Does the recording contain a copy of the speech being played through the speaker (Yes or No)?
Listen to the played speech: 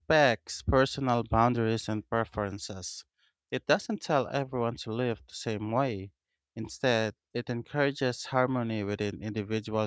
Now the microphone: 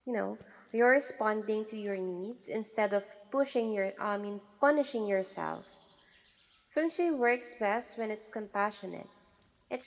No